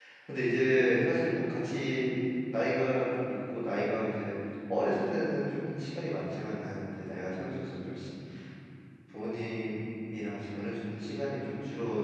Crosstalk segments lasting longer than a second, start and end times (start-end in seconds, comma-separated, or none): none